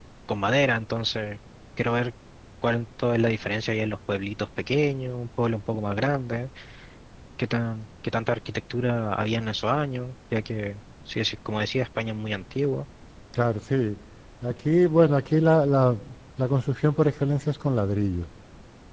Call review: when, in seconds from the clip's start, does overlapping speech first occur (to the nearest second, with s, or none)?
none